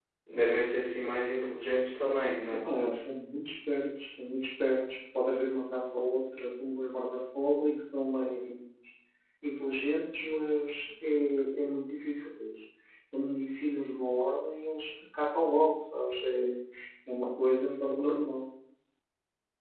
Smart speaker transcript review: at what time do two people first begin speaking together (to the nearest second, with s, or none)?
none